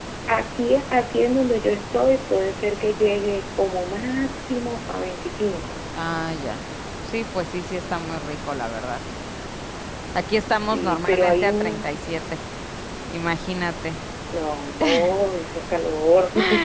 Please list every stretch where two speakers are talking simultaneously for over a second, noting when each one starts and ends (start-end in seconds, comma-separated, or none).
10.6-11.9